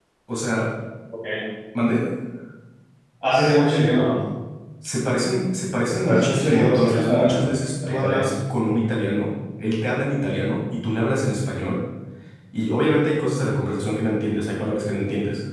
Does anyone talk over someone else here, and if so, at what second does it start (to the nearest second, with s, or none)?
6 s